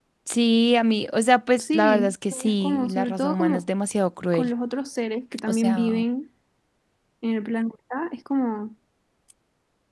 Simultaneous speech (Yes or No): Yes